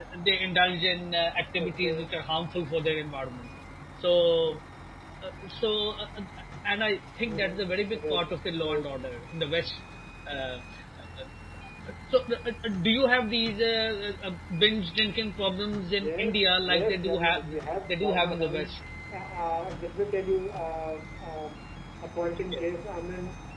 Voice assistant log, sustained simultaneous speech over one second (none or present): present